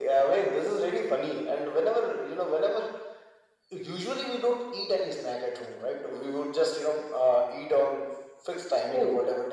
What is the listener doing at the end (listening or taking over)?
listening